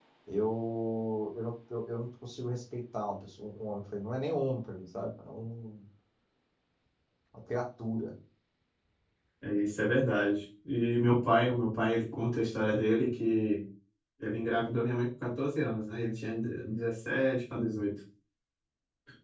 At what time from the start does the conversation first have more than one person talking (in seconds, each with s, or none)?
none